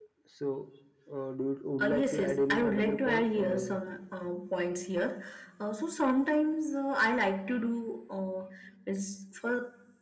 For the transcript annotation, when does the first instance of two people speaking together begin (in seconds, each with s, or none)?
1.8 s